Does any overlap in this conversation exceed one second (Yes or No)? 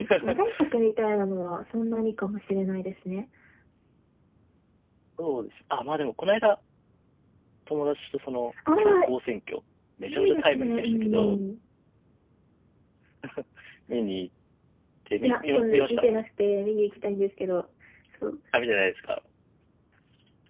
Yes